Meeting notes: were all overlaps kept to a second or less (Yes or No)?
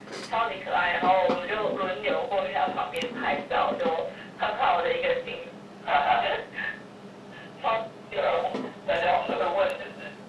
Yes